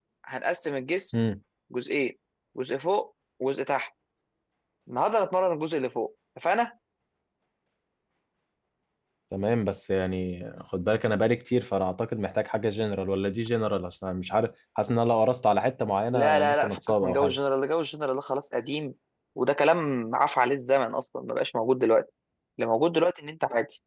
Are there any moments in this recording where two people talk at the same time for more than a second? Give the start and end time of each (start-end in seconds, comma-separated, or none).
16.1-17.4